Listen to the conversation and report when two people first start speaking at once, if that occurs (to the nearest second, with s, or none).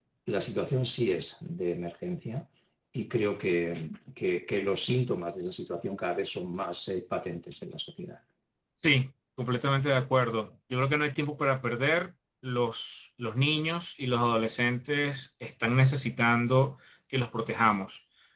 none